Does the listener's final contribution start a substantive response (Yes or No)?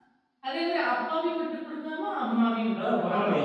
Yes